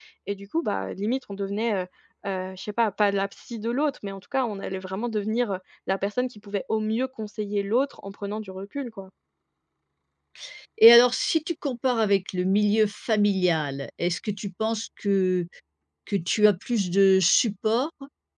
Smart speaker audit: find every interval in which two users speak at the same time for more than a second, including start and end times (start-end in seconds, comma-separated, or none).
none